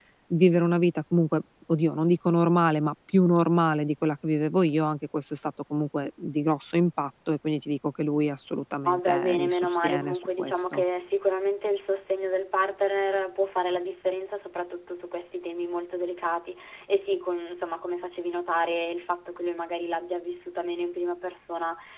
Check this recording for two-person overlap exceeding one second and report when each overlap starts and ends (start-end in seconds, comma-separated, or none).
8.9-10.8